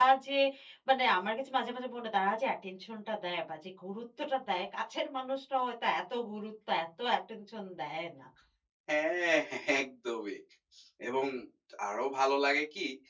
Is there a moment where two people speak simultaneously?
No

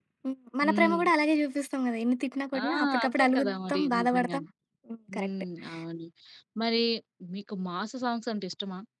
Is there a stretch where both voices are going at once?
Yes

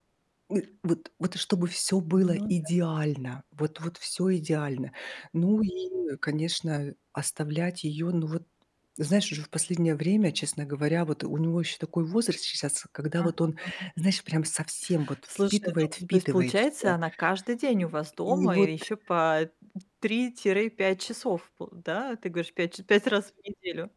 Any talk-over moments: Yes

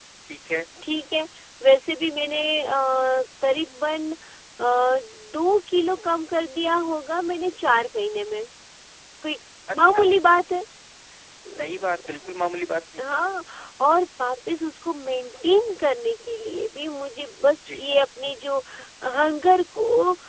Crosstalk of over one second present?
No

